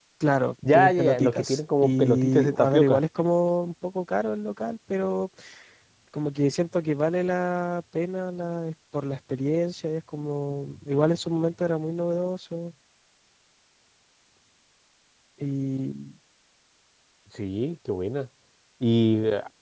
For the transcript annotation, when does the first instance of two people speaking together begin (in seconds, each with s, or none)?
0.7 s